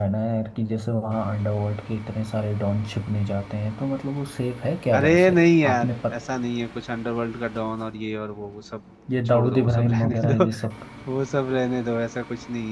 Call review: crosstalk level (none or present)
present